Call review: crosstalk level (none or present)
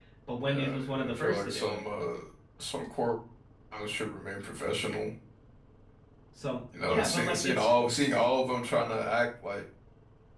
present